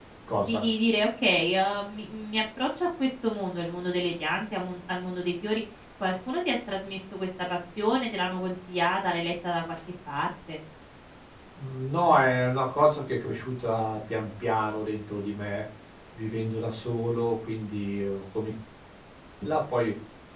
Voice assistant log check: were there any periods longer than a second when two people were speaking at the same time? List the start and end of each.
none

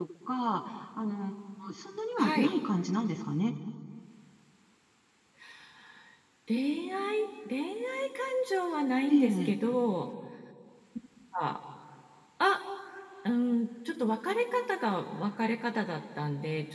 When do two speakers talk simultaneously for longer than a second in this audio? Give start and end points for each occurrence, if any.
none

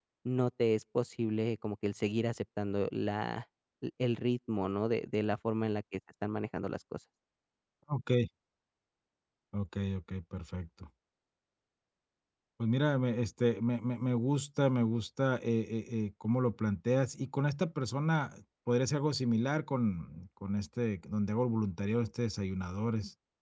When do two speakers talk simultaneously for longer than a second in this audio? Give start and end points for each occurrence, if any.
none

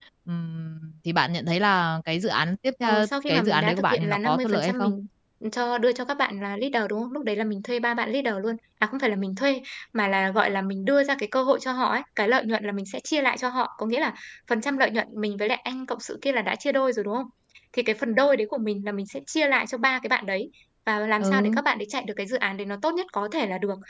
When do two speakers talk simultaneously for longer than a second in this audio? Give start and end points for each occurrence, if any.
2.8-4.9

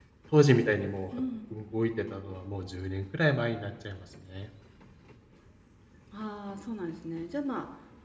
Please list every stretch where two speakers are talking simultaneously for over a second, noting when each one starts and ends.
none

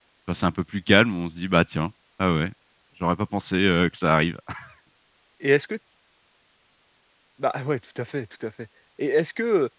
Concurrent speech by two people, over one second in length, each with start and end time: none

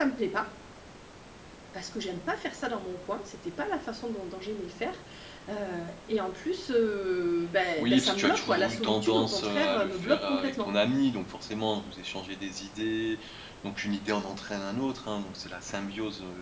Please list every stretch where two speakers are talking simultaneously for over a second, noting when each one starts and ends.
7.8-10.7

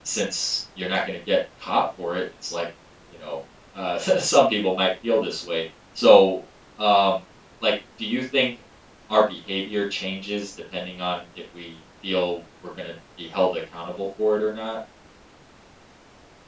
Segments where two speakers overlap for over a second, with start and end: none

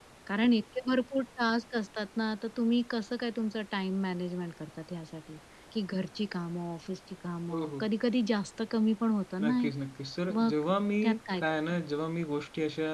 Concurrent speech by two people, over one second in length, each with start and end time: none

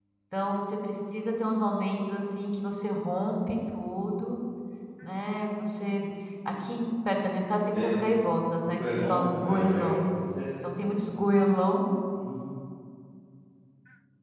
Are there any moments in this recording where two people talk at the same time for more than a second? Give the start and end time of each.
8.6-10.0

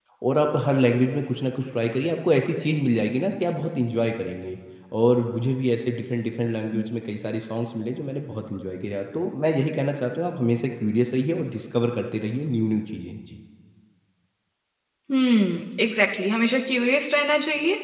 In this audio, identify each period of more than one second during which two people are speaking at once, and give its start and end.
none

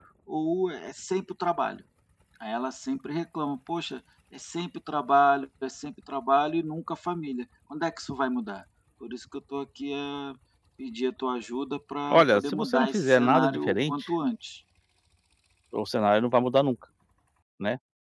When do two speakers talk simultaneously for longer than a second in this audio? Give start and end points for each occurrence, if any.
12.1-14.1

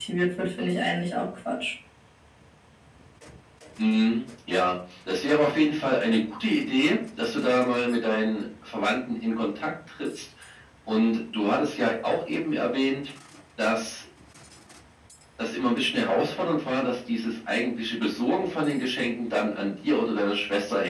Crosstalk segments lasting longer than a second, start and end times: none

